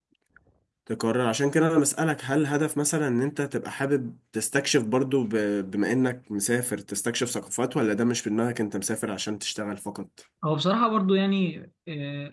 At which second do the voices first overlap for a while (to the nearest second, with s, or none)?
none